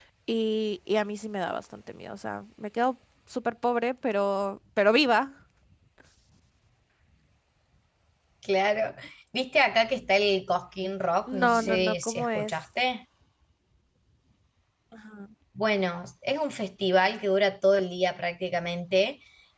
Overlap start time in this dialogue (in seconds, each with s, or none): 11.3 s